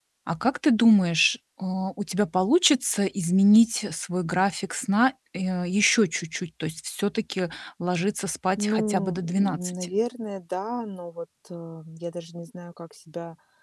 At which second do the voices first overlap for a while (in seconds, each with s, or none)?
8.6 s